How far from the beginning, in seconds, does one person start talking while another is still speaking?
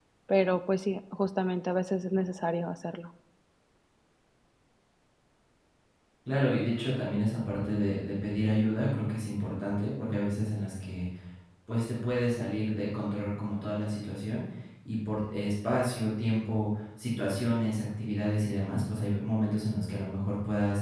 none

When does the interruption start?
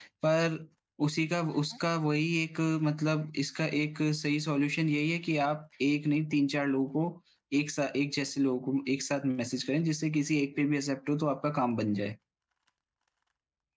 none

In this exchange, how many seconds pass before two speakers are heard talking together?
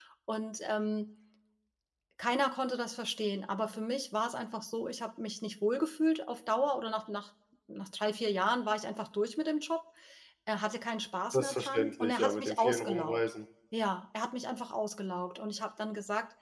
11.3 s

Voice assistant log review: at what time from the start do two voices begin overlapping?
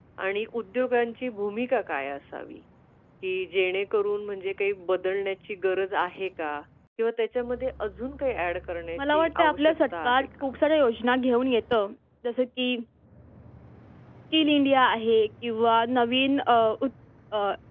9.0 s

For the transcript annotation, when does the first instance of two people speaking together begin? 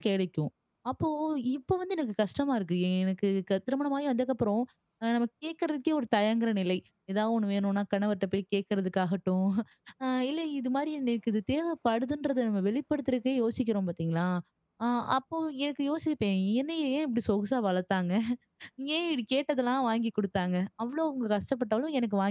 none

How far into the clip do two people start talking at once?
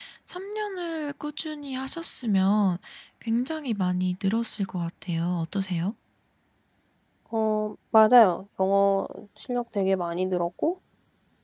none

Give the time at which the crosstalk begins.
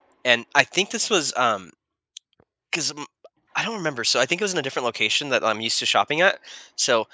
none

